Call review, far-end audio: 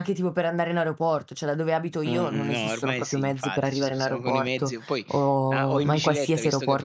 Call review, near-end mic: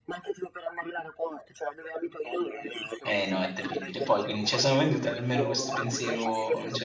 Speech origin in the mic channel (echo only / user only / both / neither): both